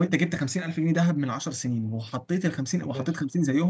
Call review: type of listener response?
listening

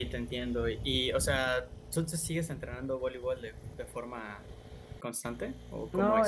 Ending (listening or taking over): taking over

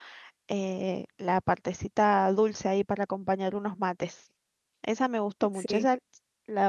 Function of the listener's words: listening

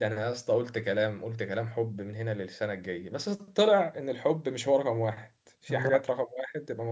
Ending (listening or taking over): listening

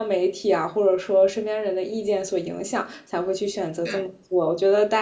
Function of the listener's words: listening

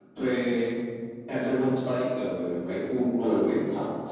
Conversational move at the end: taking over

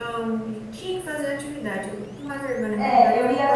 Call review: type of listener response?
taking over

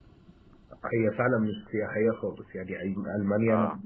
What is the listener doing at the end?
listening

